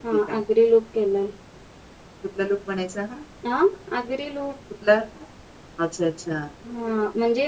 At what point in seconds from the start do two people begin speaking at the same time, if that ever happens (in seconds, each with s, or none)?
none